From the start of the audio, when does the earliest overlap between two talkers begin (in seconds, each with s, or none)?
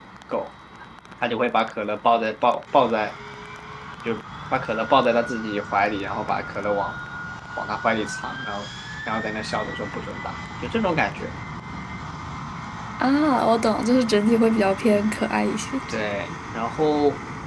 none